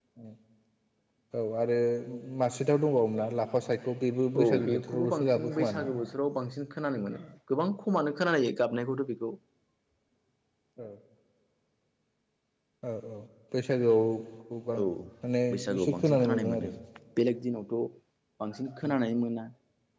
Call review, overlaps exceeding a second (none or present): present